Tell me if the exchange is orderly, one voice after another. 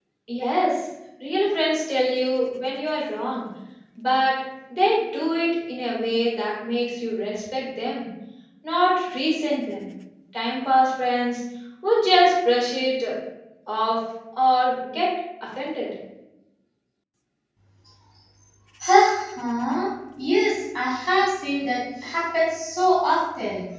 Yes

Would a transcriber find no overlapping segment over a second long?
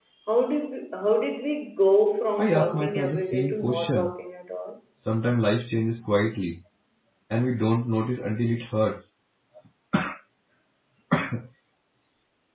No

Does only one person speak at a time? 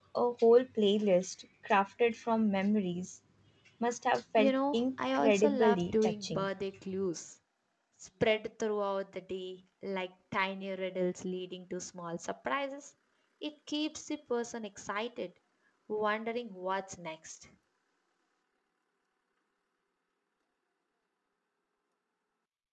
No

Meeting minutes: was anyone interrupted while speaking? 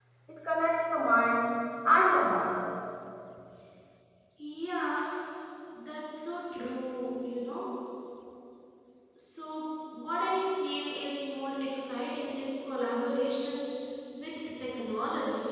No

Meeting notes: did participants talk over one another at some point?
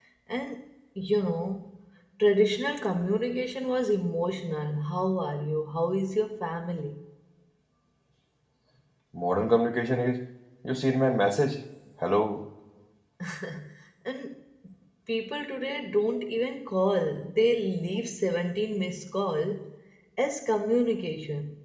No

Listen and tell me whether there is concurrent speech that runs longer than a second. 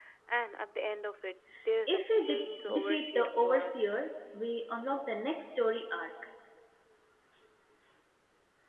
Yes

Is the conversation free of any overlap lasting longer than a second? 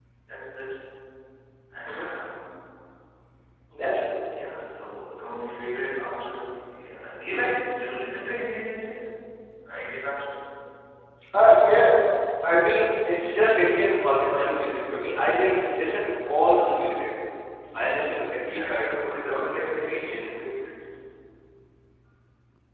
No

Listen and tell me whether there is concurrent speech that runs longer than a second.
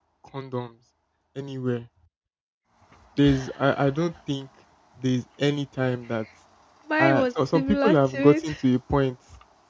Yes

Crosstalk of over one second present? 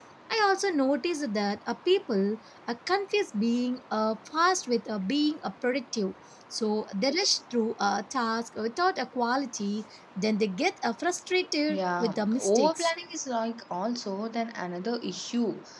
Yes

